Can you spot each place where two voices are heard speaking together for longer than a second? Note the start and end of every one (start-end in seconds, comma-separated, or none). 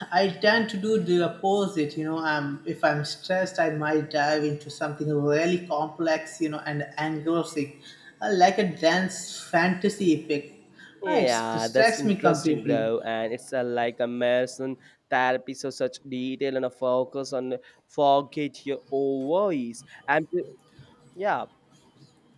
11.1-12.9